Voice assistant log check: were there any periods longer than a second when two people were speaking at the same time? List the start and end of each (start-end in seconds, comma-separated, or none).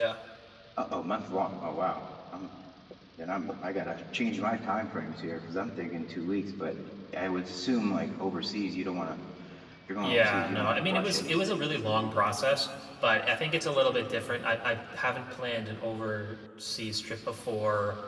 10.0-11.6